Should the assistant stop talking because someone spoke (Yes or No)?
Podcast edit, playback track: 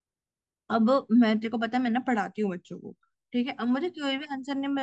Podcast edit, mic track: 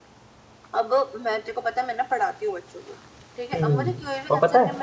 Yes